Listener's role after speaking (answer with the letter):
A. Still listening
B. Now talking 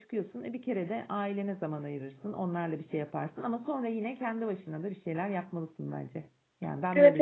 B